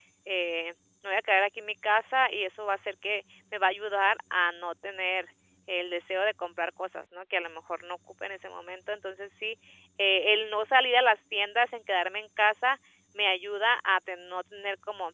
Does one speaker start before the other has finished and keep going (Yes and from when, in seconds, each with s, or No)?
No